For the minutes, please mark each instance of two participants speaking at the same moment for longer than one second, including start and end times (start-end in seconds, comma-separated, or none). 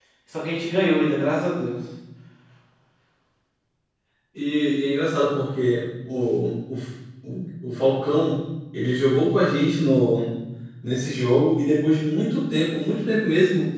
none